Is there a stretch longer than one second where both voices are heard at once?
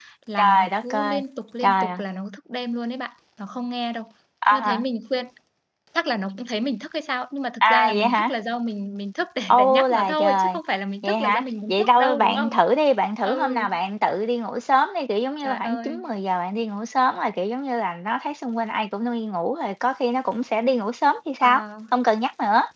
Yes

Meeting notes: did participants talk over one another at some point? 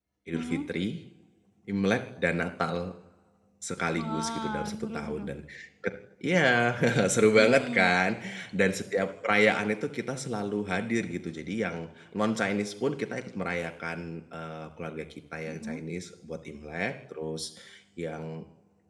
Yes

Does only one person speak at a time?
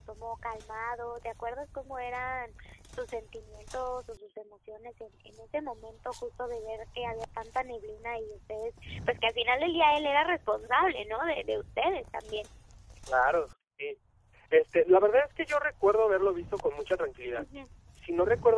Yes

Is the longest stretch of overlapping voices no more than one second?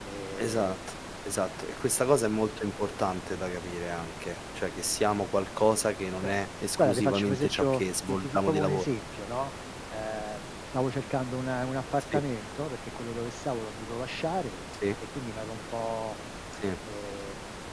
No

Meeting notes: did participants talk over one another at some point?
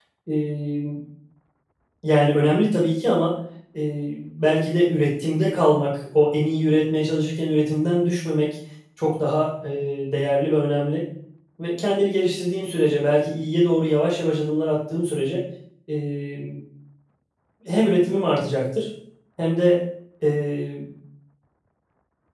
No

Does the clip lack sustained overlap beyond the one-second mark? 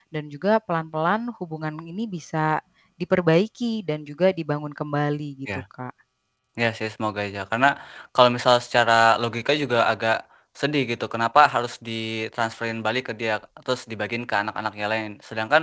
Yes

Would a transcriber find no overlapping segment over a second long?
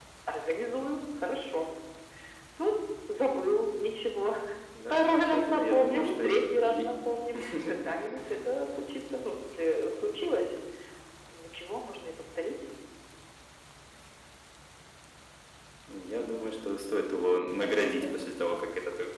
No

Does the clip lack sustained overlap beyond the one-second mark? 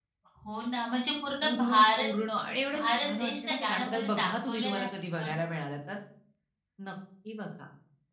No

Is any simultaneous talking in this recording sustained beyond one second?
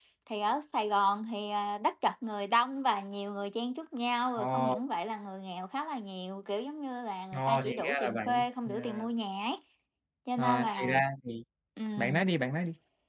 Yes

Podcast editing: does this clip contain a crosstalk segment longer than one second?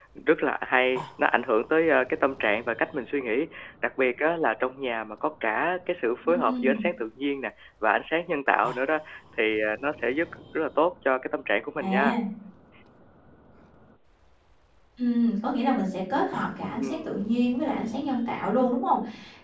No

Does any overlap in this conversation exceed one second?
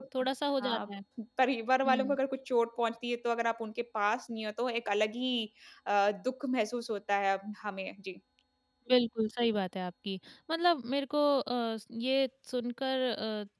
No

